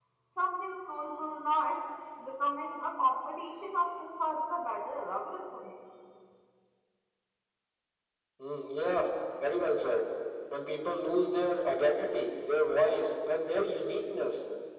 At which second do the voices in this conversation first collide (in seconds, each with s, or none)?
none